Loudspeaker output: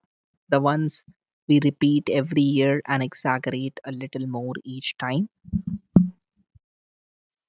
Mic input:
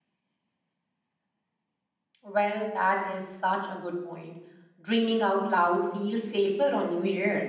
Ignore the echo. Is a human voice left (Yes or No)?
Yes